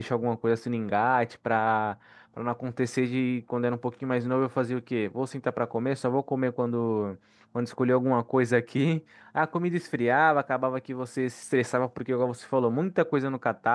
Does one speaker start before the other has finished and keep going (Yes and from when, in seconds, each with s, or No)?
No